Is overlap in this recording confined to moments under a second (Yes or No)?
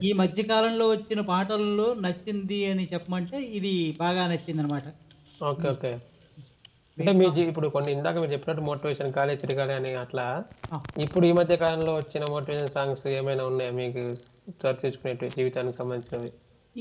Yes